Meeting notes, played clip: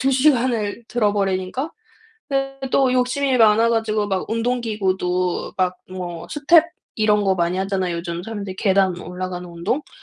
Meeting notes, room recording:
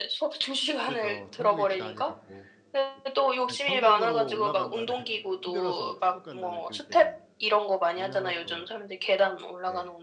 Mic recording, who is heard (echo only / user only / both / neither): both